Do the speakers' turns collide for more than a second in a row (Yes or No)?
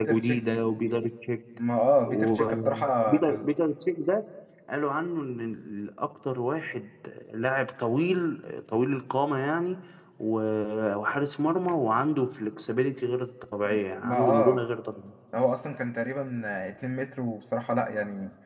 Yes